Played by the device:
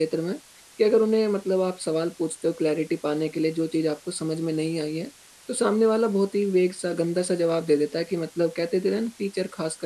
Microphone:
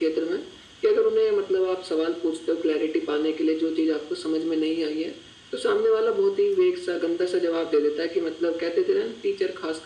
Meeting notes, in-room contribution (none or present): none